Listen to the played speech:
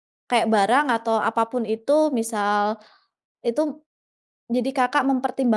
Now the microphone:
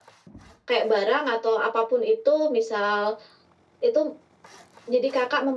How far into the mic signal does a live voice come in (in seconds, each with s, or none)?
none